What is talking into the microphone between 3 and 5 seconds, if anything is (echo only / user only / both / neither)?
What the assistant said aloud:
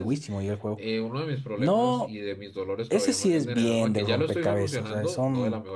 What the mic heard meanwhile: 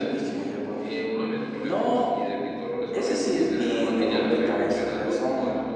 echo only